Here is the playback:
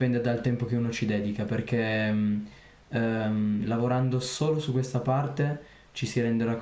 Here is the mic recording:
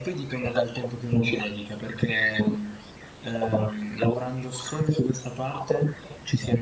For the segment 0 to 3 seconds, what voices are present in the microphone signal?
echo only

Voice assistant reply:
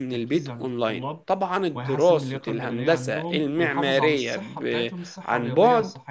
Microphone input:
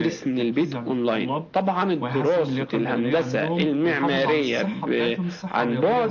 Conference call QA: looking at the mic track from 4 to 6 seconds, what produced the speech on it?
echo only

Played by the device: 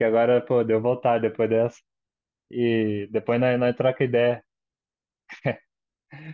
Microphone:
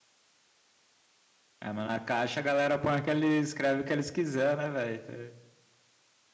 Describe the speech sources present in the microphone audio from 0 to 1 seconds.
neither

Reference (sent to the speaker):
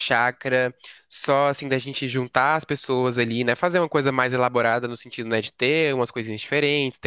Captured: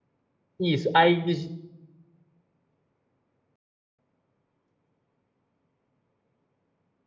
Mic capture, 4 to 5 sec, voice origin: neither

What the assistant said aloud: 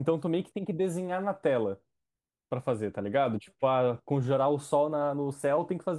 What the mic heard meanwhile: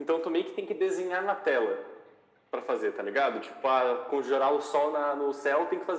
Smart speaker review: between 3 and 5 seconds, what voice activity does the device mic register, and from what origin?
echo only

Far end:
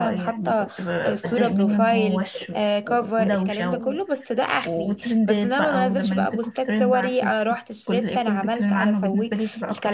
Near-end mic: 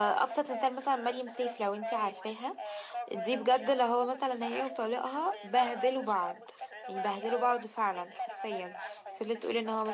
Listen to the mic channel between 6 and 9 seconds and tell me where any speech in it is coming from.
both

